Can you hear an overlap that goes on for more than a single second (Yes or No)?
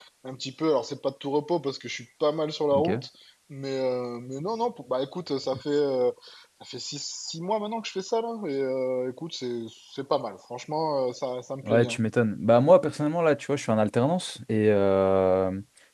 No